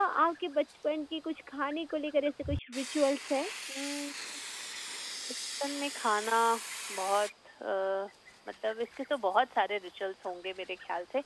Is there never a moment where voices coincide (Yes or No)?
Yes